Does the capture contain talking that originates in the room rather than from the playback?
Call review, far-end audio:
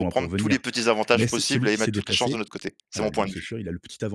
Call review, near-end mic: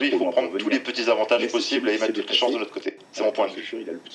No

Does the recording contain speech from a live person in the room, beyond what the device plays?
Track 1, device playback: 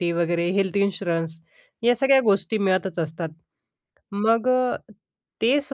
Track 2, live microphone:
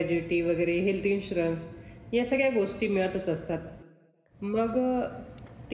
No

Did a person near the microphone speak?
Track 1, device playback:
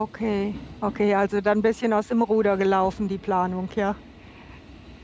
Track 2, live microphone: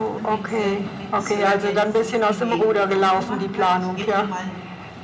Yes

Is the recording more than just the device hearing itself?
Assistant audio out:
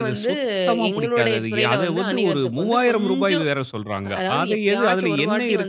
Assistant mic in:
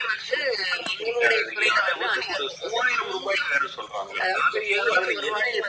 No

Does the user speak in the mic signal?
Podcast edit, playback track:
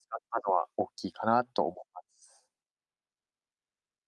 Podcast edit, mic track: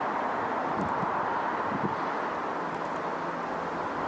No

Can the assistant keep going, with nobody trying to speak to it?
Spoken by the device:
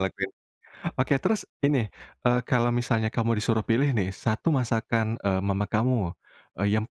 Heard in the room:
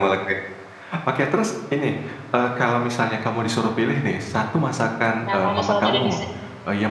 No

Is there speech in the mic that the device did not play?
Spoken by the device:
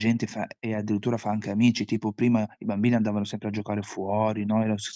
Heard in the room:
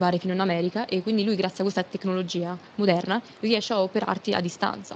Yes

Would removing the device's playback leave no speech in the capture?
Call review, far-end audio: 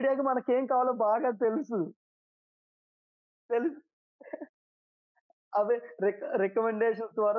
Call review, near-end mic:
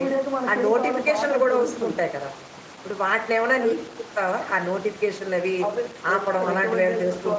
No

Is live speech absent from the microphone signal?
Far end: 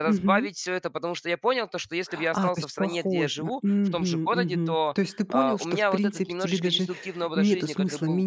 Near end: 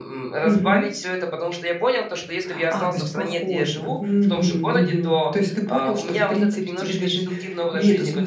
Yes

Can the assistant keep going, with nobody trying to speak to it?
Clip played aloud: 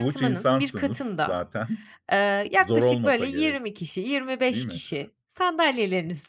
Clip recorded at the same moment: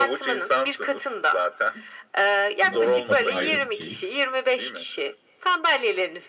No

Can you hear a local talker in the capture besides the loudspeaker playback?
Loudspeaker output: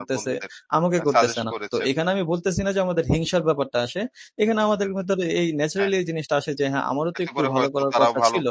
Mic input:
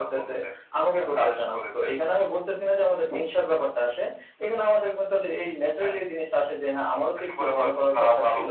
No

